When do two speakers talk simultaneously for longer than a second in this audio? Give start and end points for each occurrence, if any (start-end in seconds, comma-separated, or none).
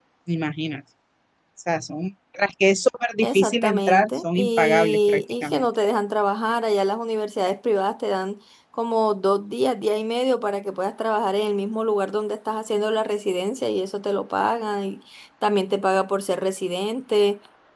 3.2-5.7